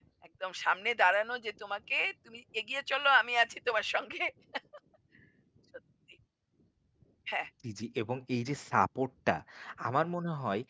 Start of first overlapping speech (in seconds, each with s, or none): none